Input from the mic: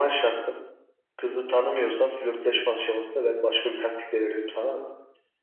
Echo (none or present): present